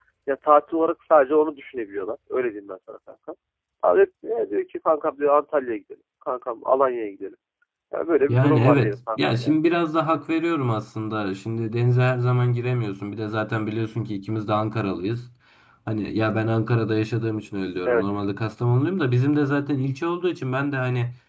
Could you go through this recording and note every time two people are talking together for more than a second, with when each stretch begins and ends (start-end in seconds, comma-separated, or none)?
8.3-9.5